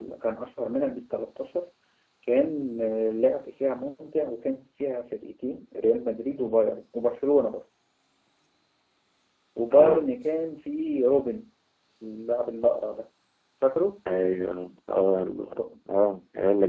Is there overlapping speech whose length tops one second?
No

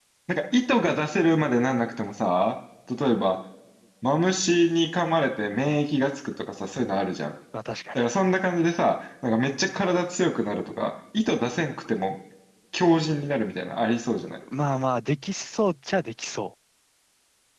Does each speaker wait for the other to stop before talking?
Yes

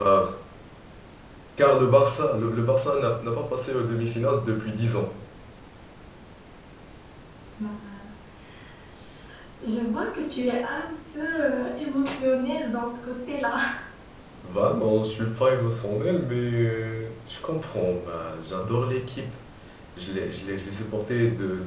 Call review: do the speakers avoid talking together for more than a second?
Yes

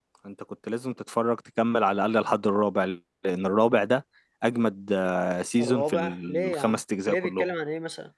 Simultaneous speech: Yes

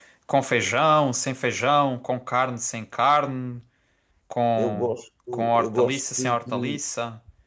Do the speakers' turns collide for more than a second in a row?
Yes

